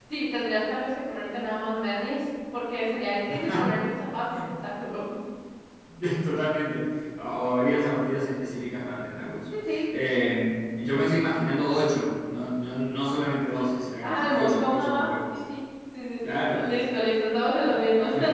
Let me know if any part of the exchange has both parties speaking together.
Yes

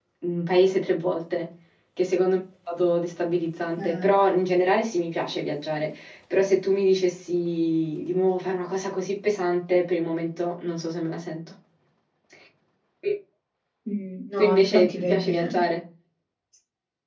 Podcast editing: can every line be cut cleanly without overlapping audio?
No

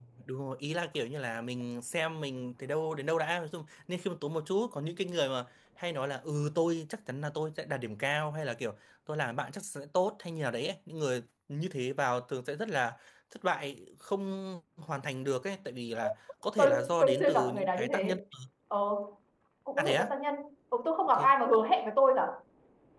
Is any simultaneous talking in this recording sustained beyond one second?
Yes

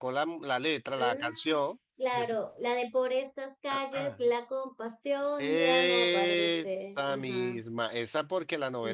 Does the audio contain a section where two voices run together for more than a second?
Yes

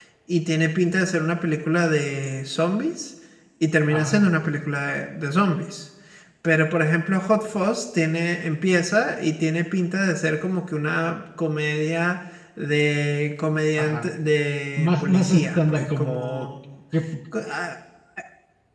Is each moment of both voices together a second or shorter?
No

